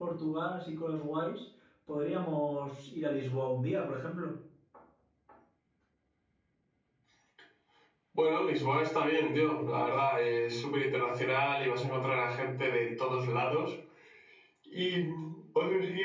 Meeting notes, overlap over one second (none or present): none